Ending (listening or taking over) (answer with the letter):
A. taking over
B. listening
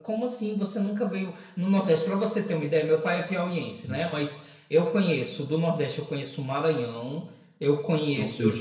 B